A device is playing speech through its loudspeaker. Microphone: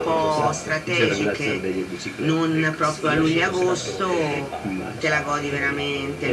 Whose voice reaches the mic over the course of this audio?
both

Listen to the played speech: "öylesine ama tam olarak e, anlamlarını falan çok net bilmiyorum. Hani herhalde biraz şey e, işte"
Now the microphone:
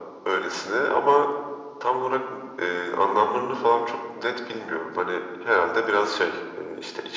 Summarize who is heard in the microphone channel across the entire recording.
echo only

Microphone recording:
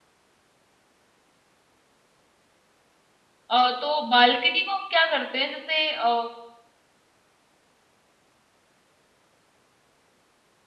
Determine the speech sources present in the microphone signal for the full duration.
user only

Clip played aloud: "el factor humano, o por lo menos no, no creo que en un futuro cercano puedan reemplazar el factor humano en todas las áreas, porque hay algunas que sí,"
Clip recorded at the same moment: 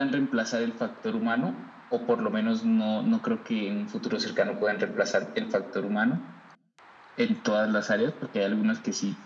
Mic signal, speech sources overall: echo only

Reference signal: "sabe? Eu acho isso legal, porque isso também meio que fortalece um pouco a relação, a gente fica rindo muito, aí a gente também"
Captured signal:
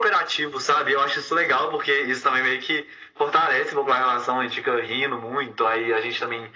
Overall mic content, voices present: echo only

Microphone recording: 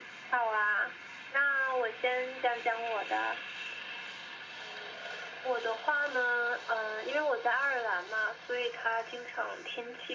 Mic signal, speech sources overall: echo only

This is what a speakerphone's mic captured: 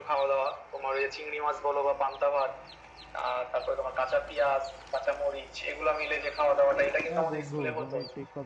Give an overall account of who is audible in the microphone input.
both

